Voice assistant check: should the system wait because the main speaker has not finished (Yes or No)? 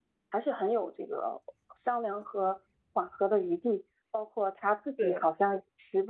Yes